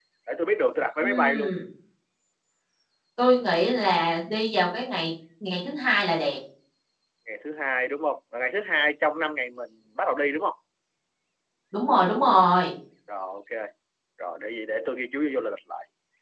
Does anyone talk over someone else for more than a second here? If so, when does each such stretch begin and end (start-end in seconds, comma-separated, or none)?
none